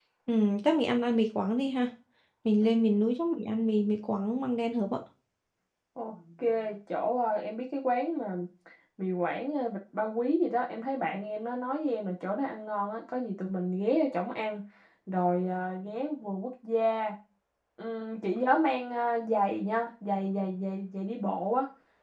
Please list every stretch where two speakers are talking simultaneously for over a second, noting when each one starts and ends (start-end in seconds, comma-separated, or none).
none